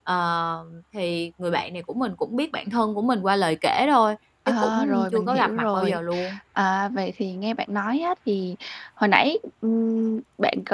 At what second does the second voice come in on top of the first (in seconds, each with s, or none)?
4.5 s